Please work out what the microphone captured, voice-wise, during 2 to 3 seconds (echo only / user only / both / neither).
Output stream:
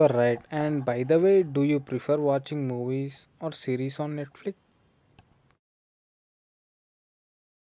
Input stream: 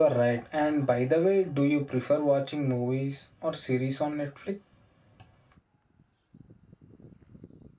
echo only